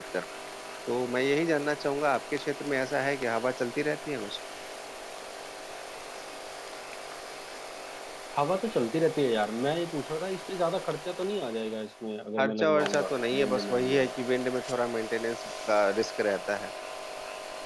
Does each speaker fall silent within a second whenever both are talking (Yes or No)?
No